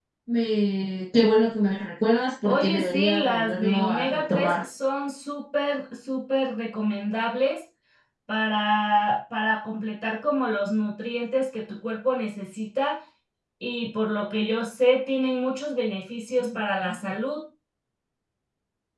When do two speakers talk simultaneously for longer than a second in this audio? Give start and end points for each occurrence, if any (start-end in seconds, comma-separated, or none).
2.4-4.6